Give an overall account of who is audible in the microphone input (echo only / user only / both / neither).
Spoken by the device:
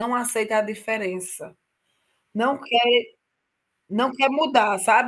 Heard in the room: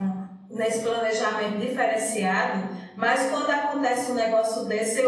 user only